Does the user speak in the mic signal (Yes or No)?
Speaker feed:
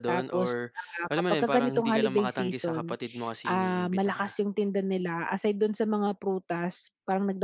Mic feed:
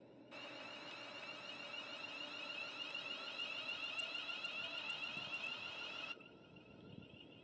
No